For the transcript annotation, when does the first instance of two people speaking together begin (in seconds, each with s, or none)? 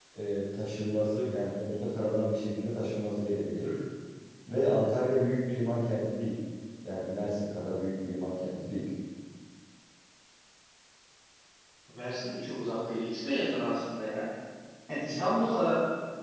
none